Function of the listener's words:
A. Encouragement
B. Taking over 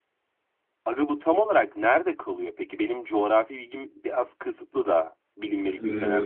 B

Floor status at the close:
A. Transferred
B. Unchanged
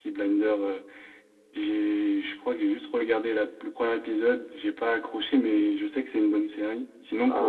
A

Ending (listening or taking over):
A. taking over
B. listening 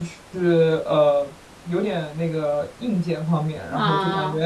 B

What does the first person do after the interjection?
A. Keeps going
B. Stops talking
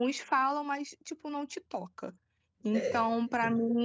A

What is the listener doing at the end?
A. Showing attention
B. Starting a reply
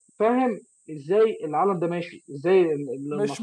B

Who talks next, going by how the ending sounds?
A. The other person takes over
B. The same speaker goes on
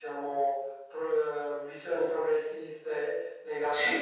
B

